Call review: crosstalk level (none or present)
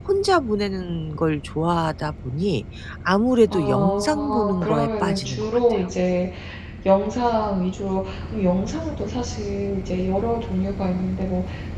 present